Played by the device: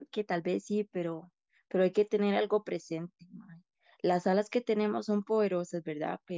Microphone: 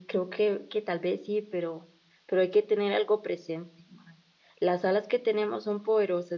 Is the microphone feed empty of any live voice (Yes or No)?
Yes